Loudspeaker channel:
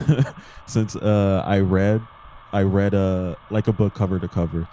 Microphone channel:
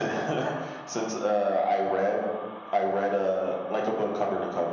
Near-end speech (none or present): none